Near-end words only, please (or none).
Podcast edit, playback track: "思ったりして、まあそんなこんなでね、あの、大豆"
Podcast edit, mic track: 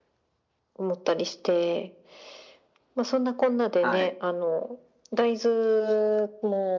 はい。